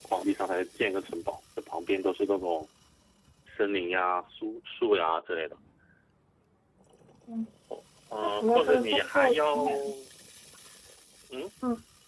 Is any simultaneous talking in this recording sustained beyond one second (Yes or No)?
Yes